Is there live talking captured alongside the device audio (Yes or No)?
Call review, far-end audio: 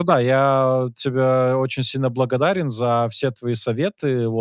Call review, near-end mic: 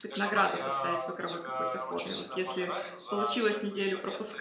Yes